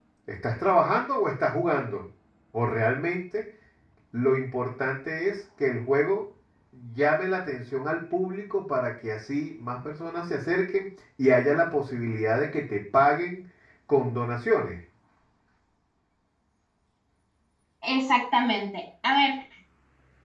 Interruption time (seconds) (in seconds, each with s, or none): none